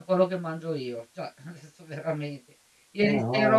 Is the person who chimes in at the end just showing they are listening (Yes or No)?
Yes